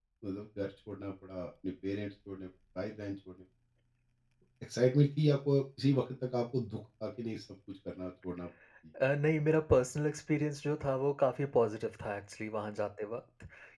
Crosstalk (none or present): none